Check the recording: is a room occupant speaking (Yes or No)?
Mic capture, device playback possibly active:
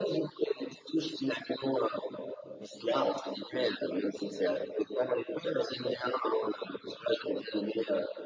No